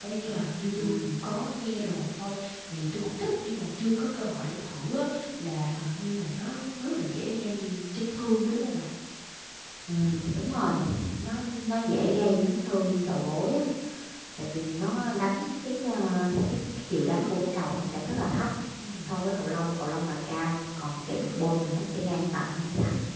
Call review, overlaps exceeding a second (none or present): none